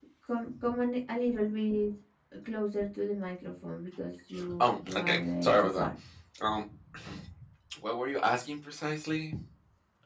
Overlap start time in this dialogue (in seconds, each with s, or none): 4.3 s